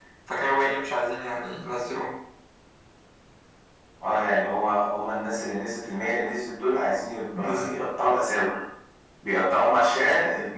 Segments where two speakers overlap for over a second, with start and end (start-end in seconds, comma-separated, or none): none